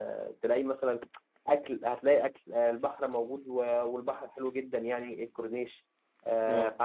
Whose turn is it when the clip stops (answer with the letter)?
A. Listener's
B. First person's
B